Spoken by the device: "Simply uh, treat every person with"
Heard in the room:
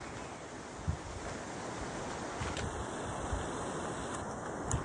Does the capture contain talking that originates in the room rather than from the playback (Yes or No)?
No